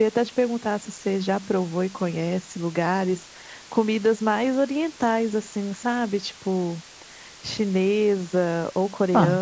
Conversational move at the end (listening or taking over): taking over